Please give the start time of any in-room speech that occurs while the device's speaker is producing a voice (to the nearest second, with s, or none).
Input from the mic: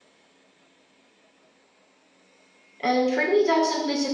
3 s